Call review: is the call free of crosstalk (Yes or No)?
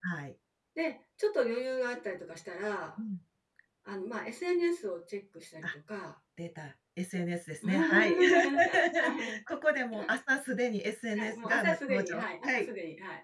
No